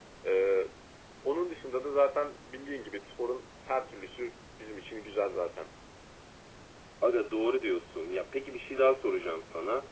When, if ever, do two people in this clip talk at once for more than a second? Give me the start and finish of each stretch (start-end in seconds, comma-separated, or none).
none